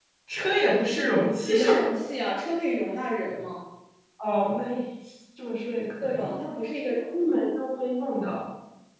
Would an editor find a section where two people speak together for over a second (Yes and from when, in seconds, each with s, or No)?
No